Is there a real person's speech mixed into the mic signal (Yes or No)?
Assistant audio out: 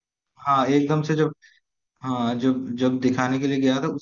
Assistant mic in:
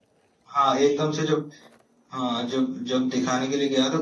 No